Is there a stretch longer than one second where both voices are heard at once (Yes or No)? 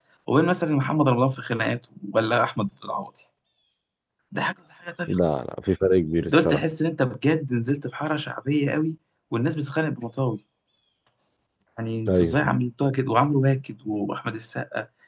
No